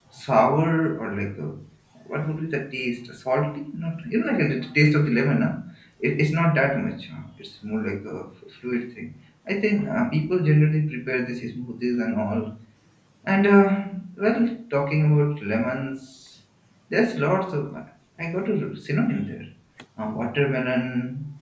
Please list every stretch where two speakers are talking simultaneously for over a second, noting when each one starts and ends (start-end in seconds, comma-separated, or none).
none